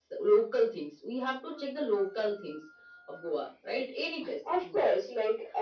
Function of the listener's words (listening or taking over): taking over